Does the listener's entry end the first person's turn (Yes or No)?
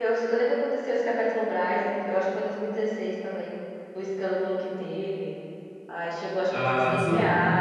No